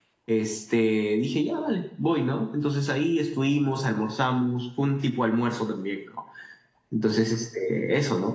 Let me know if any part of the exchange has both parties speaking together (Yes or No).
No